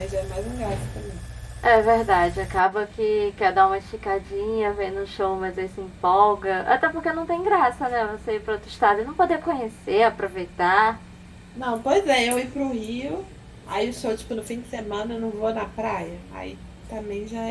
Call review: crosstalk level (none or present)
none